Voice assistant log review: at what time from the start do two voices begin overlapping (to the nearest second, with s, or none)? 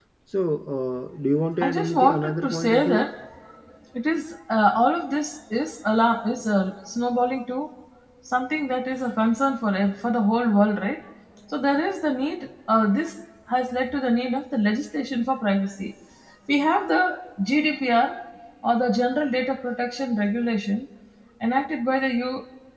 2 s